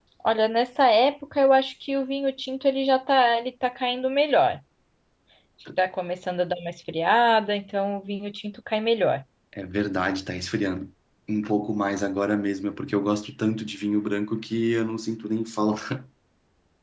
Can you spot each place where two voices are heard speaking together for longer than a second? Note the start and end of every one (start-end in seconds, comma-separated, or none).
none